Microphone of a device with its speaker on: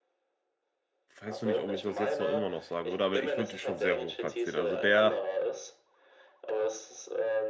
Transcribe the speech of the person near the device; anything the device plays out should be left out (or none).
weiß noch nicht, ob ich das jetzt noch immer noch sagen würde, aber ich würde ihn schon sehr hoch platzieren. Also der,